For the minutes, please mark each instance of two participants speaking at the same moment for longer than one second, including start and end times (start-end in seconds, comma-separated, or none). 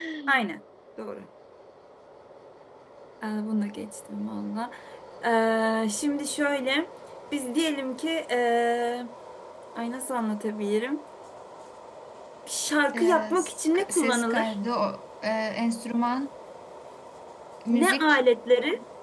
12.9-14.5